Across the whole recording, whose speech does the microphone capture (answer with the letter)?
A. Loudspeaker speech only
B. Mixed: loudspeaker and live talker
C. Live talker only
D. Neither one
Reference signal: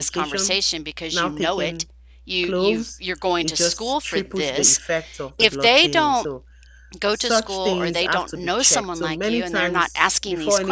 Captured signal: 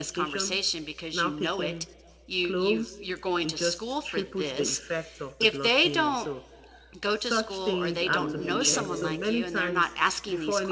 B